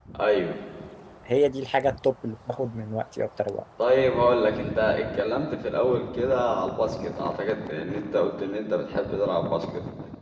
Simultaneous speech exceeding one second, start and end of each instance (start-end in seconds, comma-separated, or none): none